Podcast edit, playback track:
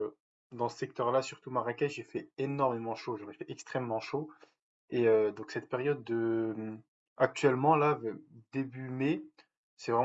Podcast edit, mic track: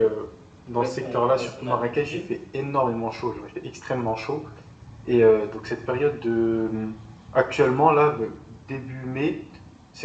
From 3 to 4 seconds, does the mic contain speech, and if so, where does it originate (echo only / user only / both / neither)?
echo only